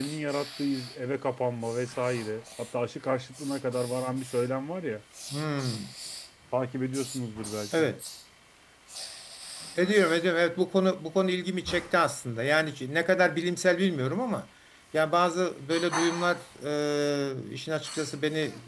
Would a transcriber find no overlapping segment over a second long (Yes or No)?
Yes